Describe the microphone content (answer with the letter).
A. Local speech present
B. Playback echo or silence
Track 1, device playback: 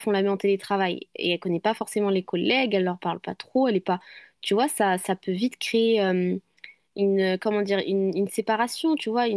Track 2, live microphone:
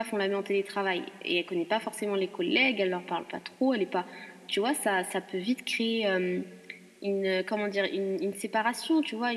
B